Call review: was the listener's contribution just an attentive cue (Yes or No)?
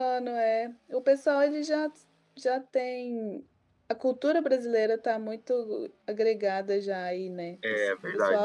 No